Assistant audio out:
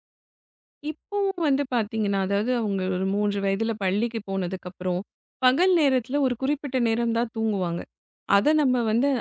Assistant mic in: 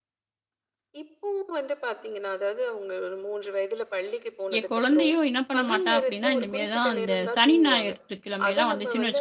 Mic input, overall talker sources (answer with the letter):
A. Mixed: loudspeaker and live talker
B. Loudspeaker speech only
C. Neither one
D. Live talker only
A